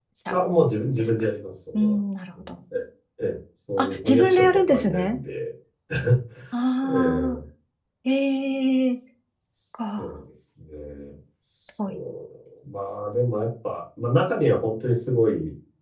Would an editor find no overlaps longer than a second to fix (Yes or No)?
No